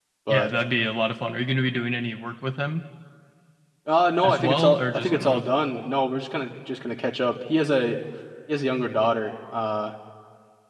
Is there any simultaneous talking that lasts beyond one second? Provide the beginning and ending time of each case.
4.2-5.4

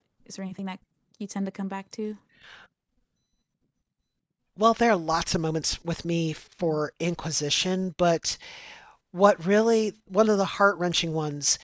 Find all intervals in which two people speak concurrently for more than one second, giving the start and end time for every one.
none

